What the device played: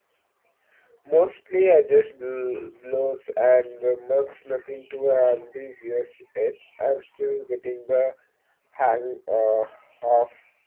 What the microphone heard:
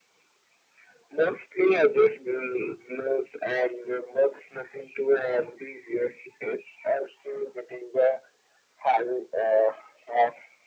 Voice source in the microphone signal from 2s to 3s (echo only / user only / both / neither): echo only